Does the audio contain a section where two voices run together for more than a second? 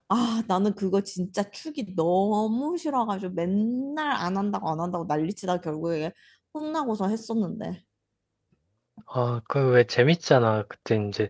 No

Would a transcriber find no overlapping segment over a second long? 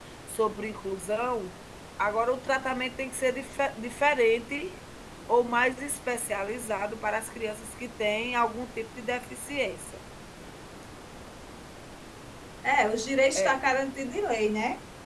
Yes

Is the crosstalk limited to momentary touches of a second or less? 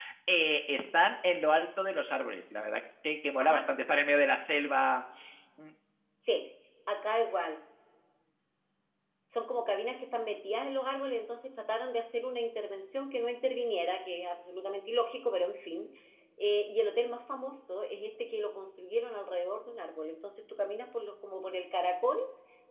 Yes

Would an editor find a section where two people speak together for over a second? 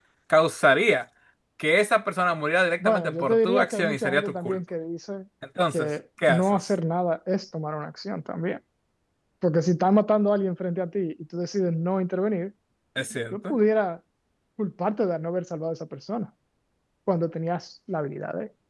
Yes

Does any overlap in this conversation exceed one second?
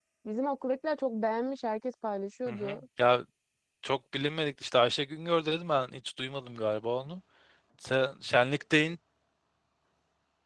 No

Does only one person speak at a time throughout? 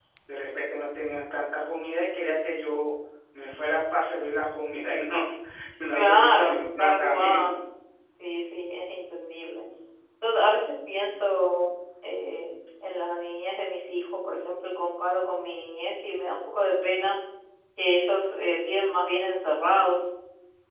No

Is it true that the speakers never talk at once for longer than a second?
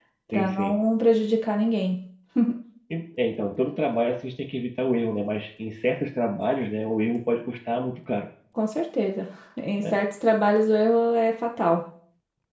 Yes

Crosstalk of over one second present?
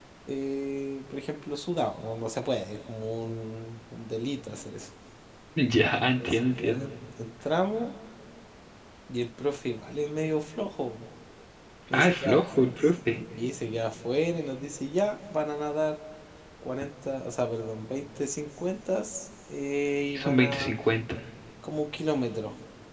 Yes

